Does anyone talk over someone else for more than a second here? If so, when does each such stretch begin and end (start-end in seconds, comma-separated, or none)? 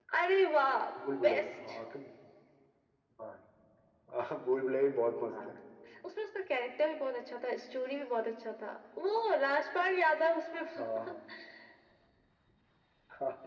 none